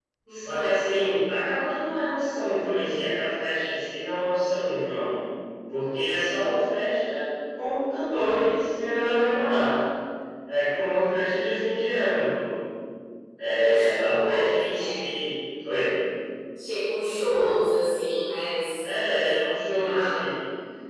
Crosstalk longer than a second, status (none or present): present